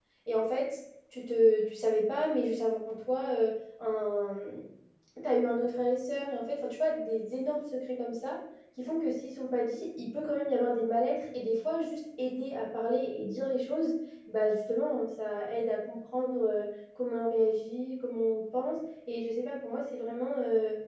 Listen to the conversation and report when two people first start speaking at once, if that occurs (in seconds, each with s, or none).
none